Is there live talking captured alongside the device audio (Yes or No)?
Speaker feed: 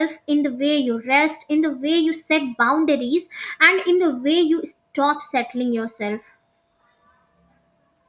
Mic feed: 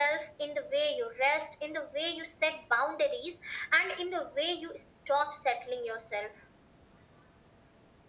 No